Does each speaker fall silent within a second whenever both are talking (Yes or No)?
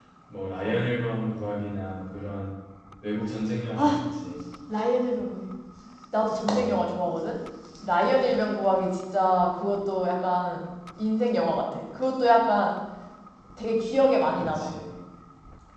Yes